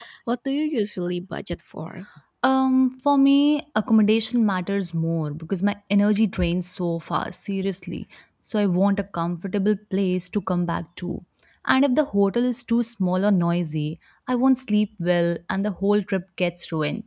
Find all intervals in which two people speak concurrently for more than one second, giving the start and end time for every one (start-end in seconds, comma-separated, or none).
none